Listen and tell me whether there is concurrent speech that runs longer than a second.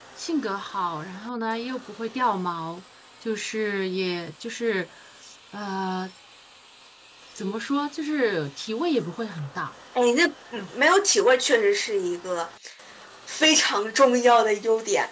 No

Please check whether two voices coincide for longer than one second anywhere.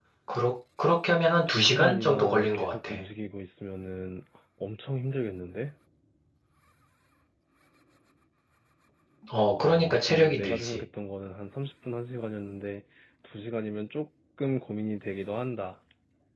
Yes, from 1.5 s

